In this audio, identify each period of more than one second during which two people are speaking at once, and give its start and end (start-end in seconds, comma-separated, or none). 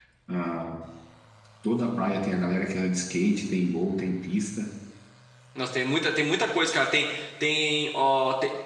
none